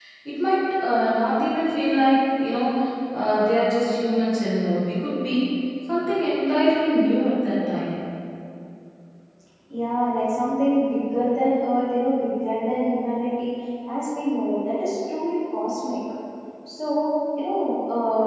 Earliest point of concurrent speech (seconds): none

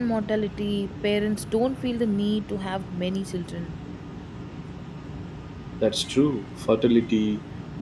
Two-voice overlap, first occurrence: none

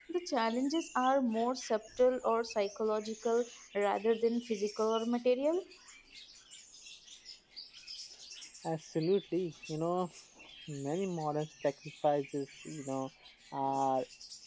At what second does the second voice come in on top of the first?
none

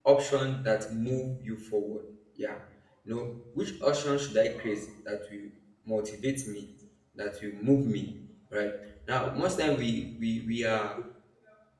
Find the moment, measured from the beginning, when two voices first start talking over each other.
none

